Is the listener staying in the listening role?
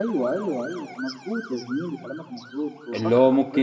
No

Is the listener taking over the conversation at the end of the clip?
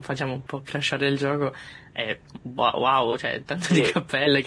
Yes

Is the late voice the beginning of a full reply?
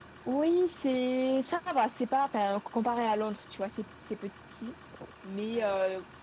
No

